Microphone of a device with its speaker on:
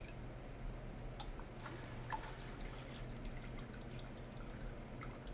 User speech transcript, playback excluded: none

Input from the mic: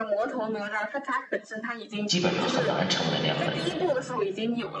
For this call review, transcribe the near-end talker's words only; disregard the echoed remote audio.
基本上很难成为那样的人，

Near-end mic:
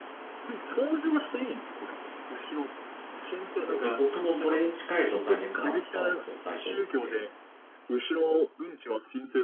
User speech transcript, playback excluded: で、僕もそれに近い状態にやっぱなったんですよ、最初行って。

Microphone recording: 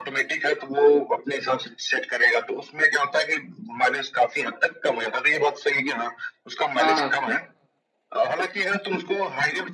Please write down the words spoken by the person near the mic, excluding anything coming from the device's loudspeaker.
हाँ हाँ

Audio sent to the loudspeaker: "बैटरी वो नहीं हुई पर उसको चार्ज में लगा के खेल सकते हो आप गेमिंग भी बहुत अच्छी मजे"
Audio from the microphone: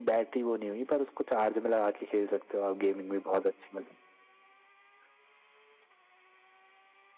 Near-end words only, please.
none

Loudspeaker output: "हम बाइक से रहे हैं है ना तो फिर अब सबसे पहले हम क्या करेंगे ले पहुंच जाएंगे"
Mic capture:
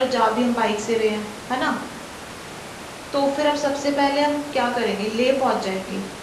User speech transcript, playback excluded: none

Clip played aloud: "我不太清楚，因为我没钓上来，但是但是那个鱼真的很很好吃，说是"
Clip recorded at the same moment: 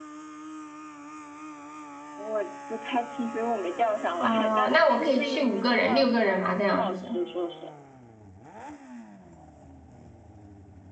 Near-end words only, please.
哦，那我可以去五个人、六个人嘛这样子。

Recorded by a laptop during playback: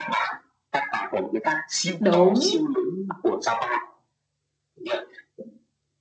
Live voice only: đúng

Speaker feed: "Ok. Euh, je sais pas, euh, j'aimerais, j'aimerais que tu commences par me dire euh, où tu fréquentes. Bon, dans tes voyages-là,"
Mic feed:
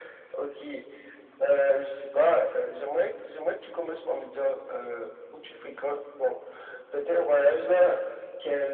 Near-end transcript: none

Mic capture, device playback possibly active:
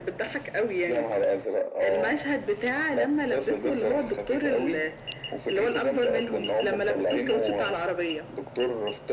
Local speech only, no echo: none

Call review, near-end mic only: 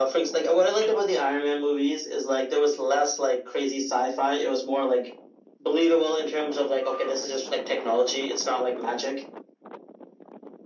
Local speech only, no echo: none

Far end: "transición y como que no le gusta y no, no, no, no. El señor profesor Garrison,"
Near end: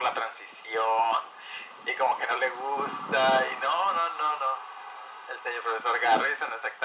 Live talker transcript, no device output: none

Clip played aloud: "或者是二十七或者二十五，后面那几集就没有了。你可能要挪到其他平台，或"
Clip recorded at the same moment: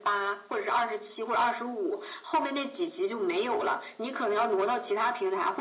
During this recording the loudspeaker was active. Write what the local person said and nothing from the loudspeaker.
none

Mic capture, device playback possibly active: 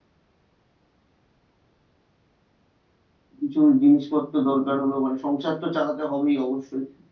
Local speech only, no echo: কিছু জিনিসপত্র দরকার হলো মানে সংসার তো চালাতে হবেই অবশ্যই

